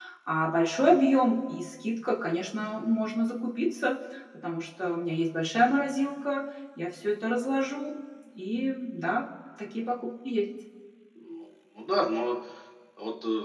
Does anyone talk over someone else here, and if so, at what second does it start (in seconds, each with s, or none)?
none